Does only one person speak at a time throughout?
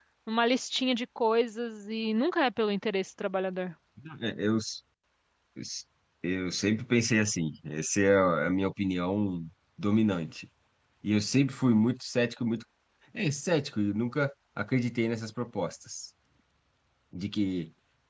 Yes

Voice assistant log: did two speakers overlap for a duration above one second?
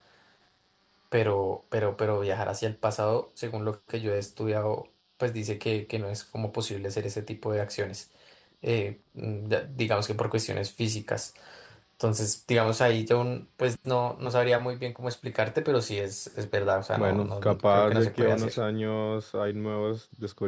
Yes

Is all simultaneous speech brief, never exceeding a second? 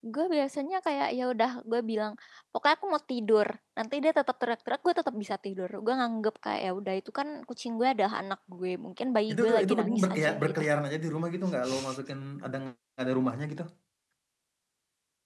No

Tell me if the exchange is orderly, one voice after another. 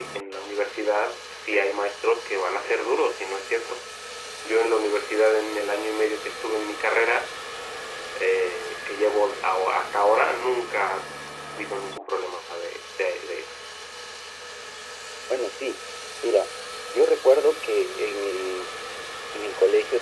Yes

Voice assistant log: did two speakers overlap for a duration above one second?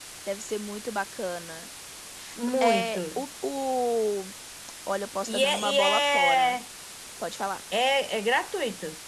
Yes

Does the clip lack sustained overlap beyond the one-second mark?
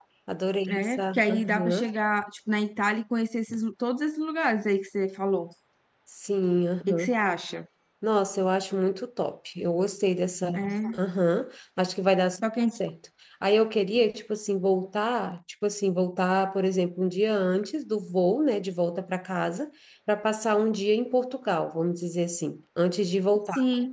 No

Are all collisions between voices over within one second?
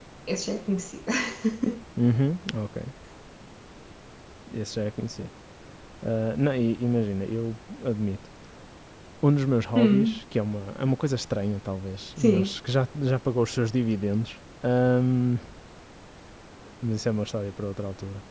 Yes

